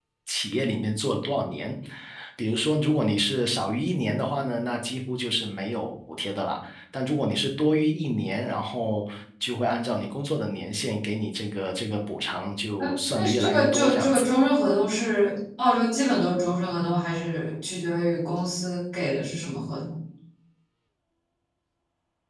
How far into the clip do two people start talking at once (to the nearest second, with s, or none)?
13 s